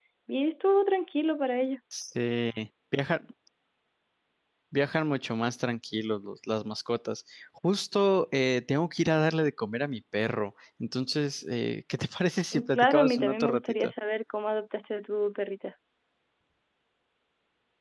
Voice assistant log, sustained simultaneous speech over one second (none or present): present